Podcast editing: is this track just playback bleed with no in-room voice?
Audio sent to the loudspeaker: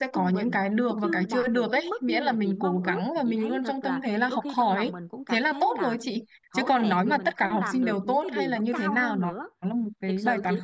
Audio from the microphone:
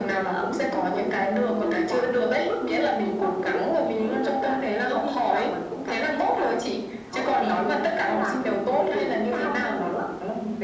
Yes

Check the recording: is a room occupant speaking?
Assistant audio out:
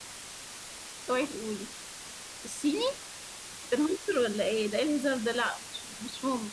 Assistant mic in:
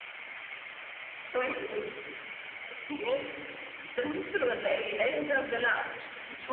No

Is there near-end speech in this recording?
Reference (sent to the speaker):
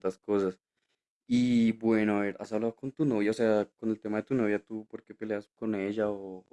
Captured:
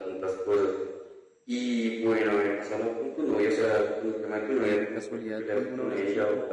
Yes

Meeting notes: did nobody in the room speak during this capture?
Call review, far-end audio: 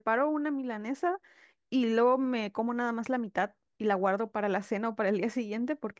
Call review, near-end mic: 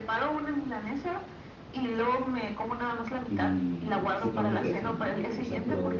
No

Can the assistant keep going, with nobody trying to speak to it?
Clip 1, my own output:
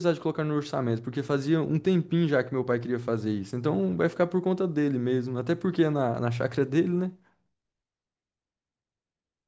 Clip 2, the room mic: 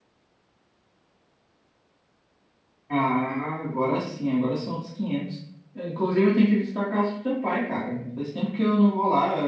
No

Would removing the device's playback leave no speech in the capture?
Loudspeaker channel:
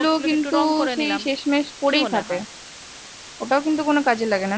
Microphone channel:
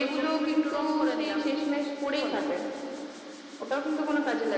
Yes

